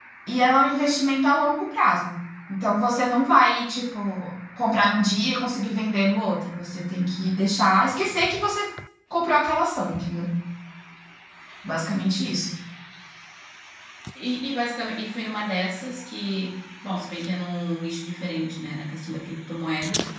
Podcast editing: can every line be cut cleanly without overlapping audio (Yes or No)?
Yes